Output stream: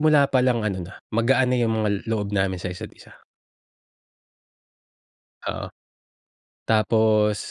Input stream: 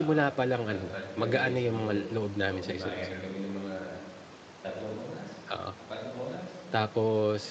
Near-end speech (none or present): present